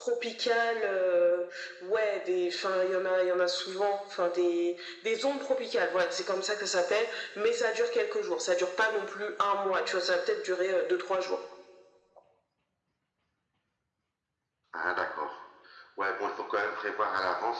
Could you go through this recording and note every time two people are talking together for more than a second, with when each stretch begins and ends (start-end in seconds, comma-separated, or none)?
none